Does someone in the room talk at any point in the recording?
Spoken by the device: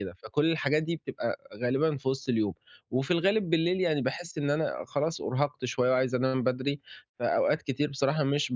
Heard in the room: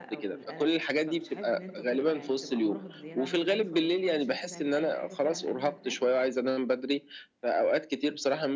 Yes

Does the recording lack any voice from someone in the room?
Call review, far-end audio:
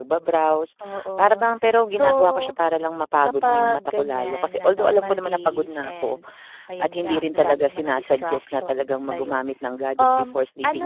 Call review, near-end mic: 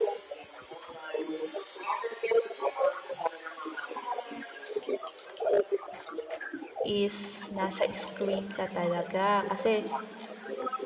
No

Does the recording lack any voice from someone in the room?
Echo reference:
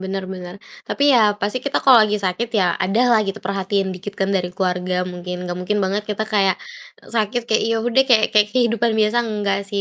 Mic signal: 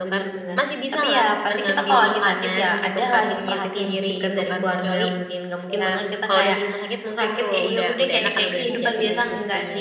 No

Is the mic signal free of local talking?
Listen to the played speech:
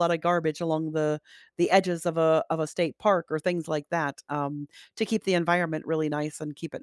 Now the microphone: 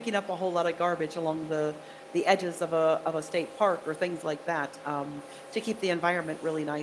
Yes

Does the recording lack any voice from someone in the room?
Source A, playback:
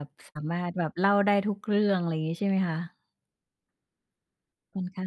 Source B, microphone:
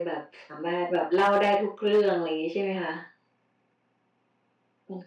Yes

